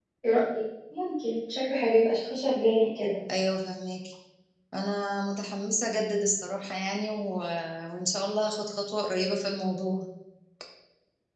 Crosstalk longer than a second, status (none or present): none